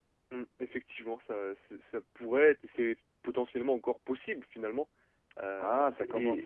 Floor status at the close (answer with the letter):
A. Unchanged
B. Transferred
B